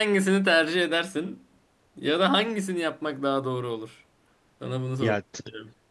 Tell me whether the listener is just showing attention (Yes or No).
No